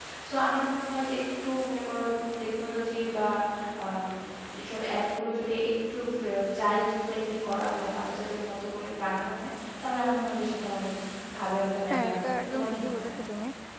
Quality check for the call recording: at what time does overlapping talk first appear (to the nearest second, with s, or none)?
12 s